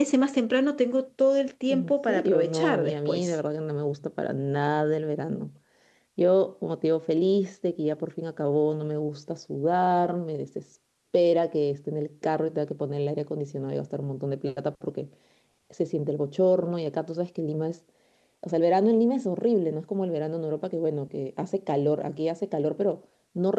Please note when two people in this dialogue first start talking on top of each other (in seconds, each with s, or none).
1.7 s